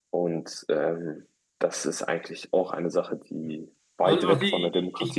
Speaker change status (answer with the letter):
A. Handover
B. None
A